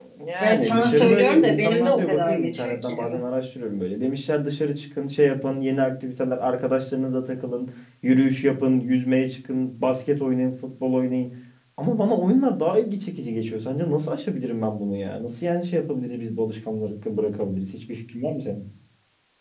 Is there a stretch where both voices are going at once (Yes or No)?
Yes